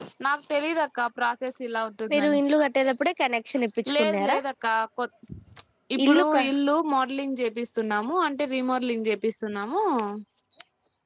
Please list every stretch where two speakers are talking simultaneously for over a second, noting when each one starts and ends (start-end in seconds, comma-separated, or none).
none